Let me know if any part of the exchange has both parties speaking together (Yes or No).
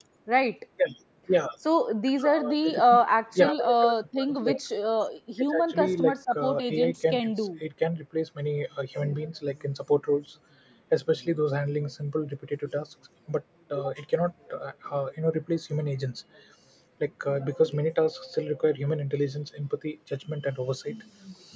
Yes